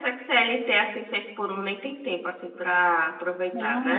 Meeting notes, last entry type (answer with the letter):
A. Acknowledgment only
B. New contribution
B